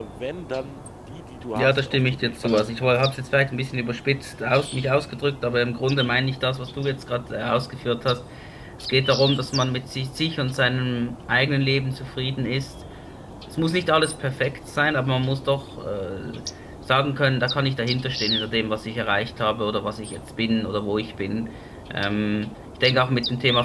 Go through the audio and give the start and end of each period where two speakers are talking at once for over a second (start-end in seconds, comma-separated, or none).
1.5-2.9